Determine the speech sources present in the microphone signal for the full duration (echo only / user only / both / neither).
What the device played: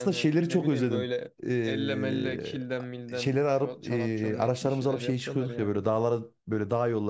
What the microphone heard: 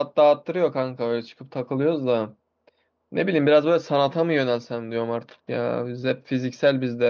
user only